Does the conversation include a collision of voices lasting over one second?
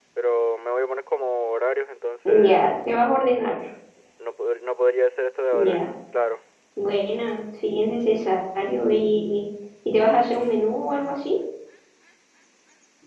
No

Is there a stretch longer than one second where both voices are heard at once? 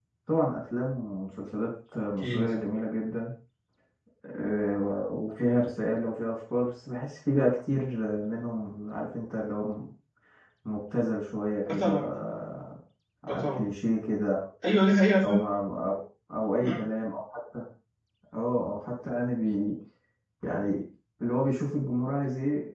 No

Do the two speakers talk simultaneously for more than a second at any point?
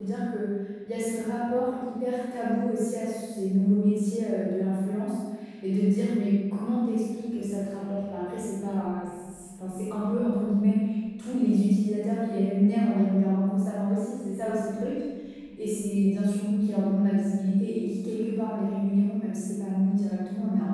No

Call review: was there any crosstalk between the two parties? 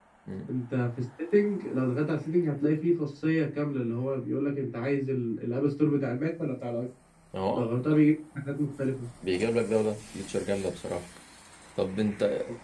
No

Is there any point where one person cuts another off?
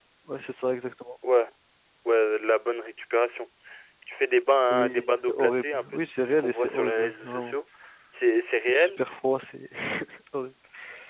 Yes, from 4.7 s

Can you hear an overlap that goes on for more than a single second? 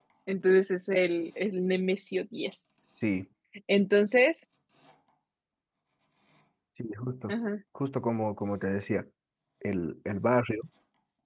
No

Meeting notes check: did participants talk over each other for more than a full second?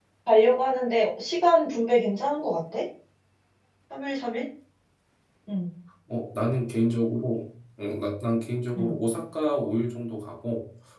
No

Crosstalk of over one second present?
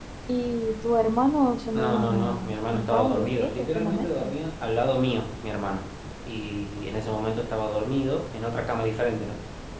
Yes, from 1.8 s

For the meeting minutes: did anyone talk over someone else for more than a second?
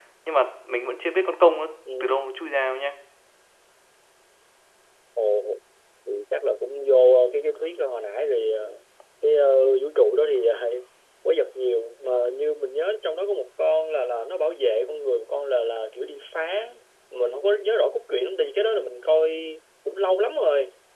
No

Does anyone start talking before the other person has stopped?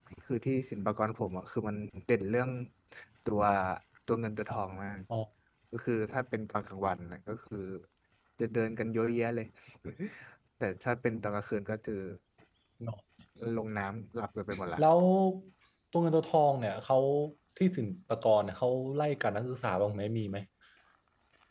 No

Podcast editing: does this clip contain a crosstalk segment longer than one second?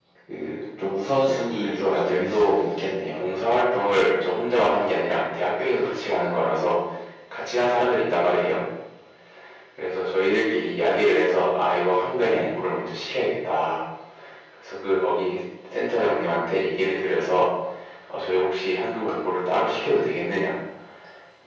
Yes, from 1.2 s

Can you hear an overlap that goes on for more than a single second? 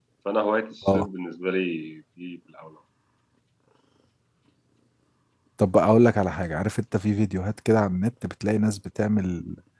No

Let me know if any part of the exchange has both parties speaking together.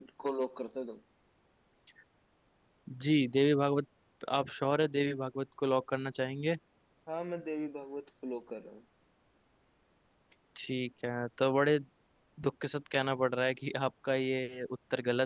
No

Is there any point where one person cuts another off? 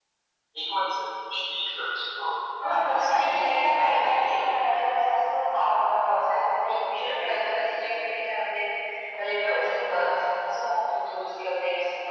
Yes, from 2.6 s

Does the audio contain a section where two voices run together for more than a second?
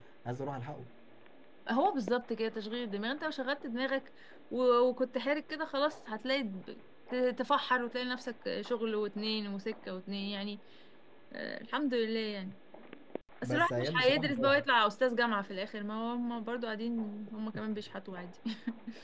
Yes, from 13.4 s

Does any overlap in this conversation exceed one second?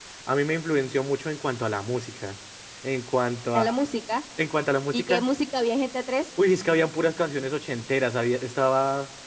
No

